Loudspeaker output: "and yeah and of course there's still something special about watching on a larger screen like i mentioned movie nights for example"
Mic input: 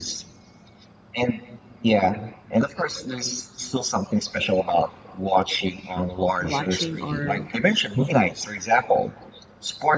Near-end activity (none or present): present